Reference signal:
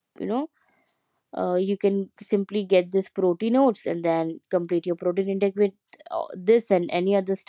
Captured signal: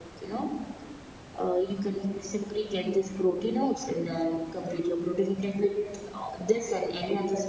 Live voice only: none

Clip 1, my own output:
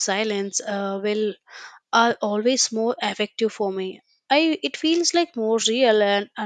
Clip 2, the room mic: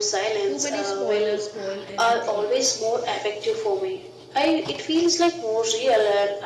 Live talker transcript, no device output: Too many spoilers spoil everything.

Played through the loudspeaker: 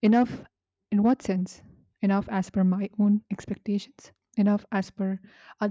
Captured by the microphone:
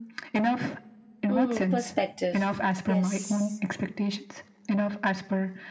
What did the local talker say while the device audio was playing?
mm, perspective yes

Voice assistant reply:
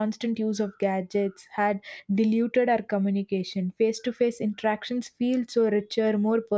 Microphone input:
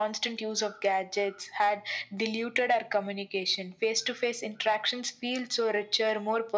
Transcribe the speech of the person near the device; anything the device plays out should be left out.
none

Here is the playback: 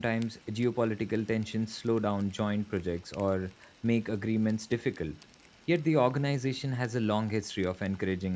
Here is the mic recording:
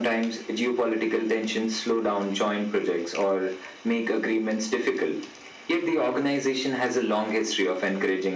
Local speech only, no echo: none

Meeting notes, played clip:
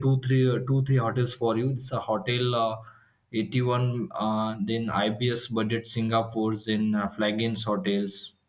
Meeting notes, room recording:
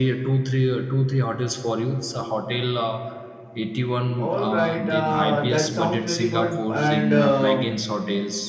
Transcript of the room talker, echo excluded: All right, uh, that sounds very good. And um

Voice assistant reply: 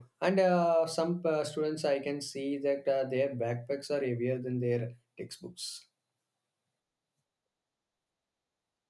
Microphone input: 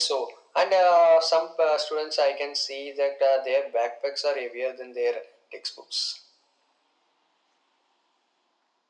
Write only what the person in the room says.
none

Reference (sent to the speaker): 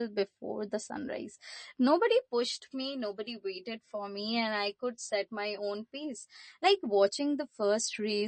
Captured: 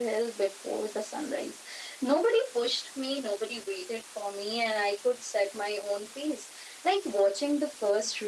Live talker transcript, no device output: none

